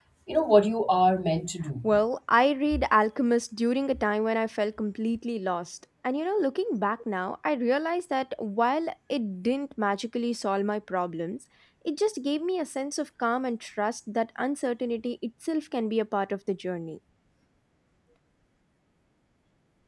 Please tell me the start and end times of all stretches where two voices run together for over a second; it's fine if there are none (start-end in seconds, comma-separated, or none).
none